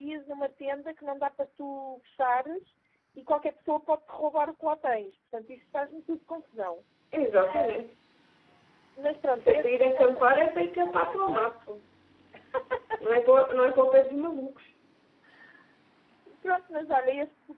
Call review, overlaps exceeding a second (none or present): present